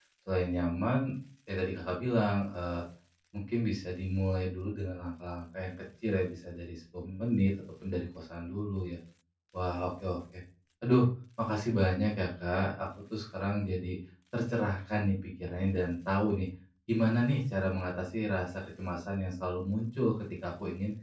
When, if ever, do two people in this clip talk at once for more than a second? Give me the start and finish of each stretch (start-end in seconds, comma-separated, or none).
none